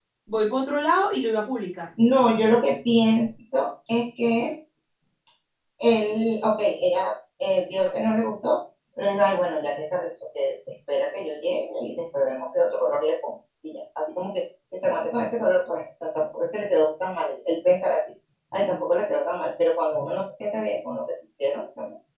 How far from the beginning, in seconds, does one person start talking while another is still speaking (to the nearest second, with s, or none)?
none